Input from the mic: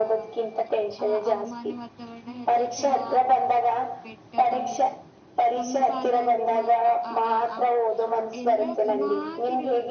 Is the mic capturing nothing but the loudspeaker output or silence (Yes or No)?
No